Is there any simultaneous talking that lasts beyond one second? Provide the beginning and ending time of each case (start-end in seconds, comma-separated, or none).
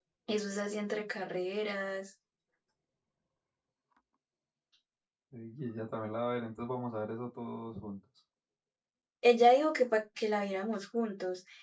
none